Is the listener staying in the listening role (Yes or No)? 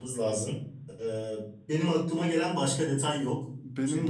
No